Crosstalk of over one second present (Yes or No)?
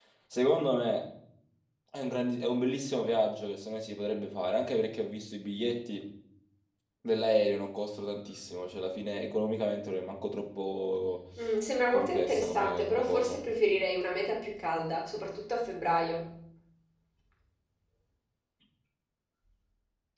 Yes